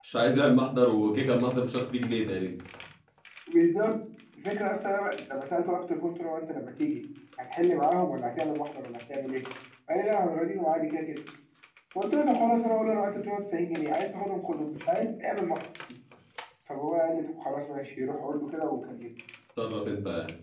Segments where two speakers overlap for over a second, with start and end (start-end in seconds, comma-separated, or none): none